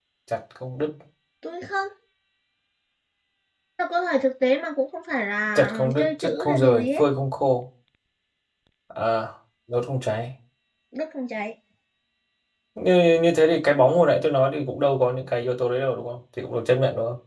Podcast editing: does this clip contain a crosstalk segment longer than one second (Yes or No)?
Yes